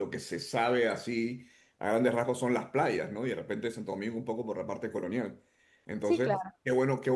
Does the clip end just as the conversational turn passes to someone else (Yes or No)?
No